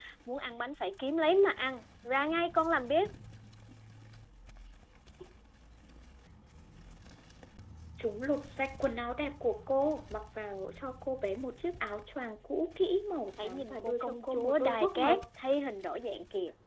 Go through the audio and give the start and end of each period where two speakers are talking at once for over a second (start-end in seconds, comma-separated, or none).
13.4-15.2